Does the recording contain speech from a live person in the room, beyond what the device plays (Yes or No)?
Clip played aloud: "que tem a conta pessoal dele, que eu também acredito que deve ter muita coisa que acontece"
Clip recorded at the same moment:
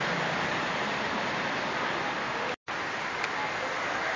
No